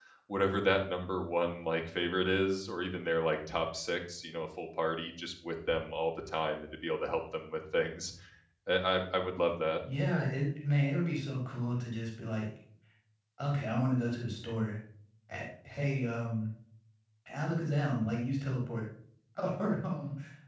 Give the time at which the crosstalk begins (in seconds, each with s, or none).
none